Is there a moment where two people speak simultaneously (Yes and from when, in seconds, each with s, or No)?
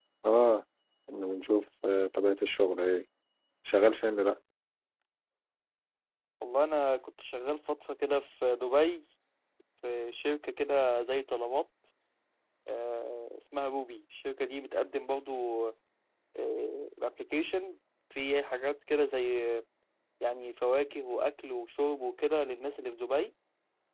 No